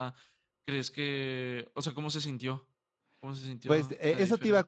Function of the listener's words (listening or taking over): taking over